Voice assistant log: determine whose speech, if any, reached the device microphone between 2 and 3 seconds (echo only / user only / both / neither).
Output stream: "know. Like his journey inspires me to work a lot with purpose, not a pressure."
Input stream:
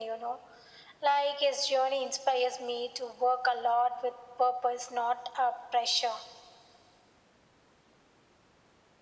echo only